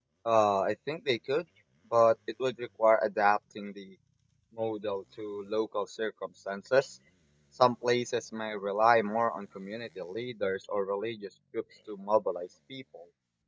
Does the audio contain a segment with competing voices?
No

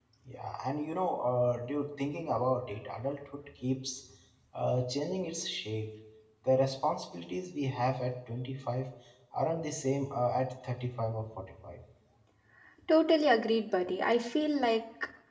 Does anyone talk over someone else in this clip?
No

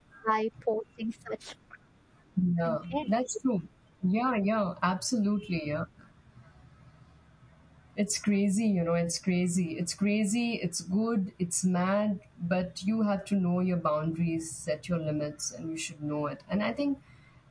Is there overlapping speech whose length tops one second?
No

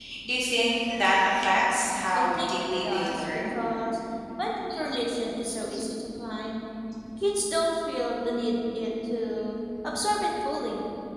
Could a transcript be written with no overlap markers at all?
No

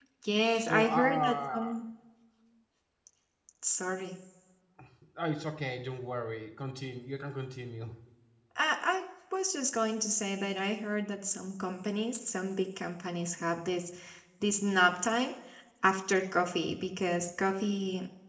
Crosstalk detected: Yes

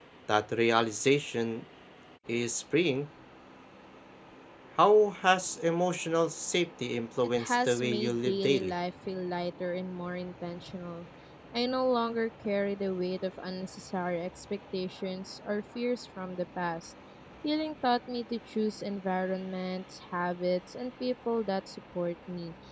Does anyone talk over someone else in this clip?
Yes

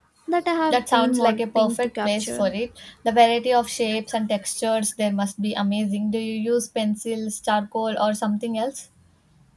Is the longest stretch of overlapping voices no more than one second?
No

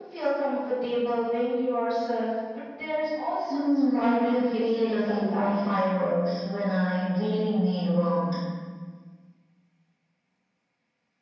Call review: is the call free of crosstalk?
No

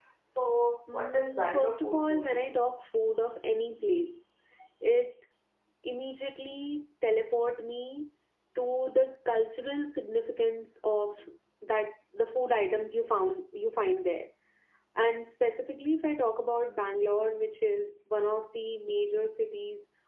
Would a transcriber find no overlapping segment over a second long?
No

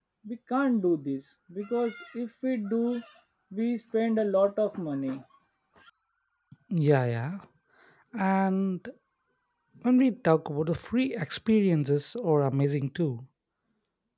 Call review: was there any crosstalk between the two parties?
No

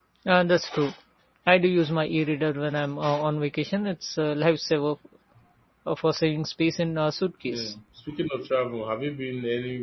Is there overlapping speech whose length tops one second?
No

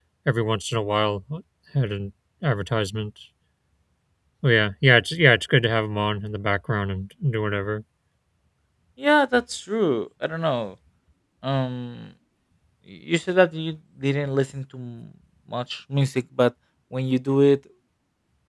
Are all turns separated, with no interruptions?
Yes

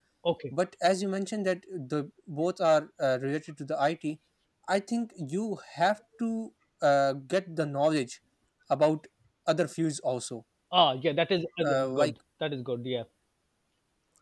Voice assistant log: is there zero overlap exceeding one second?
Yes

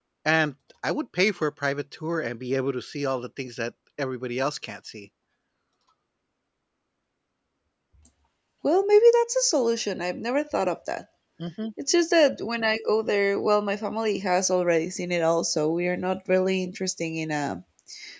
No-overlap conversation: Yes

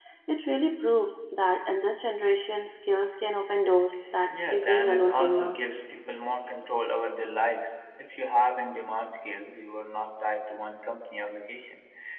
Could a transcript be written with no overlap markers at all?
No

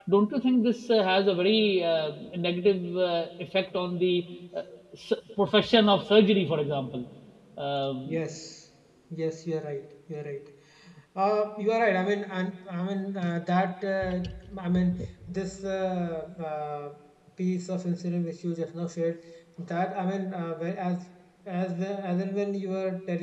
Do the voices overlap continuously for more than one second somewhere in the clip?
No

